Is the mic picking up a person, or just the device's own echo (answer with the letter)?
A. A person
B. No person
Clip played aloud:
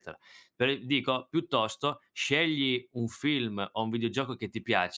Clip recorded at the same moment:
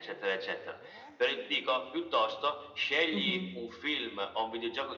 A